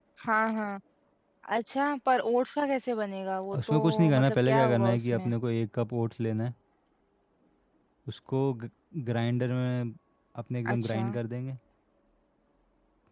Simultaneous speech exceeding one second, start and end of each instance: 3.6-5.3

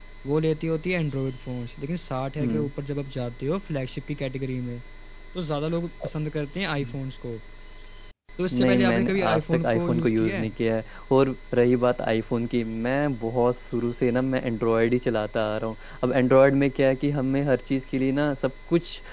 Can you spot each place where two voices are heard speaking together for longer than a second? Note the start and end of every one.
8.6-10.5

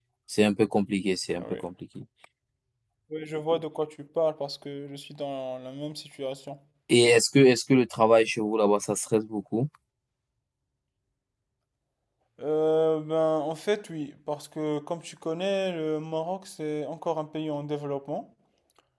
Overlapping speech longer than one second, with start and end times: none

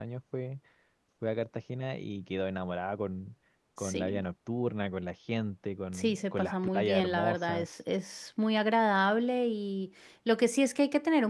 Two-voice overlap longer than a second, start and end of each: 5.9-7.7

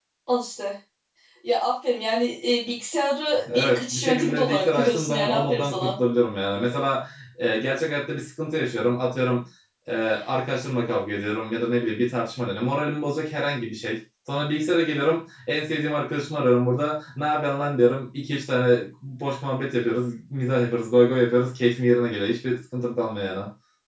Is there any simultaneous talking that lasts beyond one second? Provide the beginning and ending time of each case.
3.5-5.9

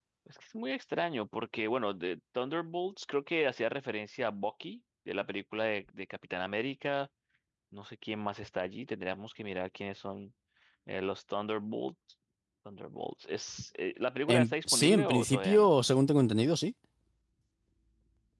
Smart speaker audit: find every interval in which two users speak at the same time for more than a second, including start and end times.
14.3-15.7

